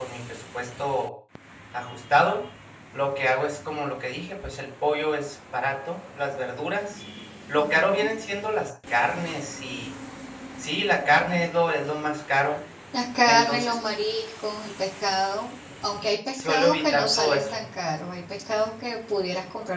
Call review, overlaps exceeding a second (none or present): present